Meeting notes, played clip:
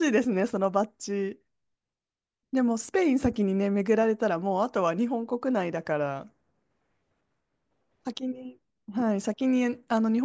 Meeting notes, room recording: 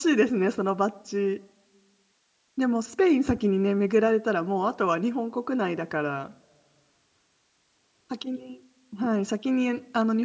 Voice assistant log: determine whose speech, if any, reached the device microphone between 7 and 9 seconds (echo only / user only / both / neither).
echo only